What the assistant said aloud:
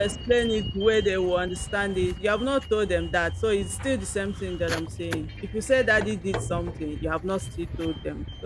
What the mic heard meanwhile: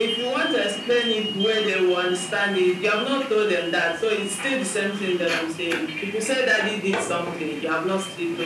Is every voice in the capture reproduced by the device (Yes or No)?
Yes